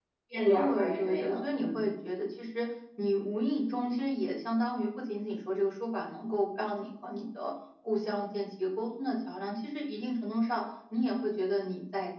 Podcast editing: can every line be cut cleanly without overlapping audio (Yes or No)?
No